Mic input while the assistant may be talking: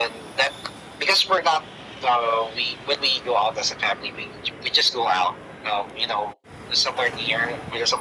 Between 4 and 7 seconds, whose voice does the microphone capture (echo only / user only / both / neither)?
echo only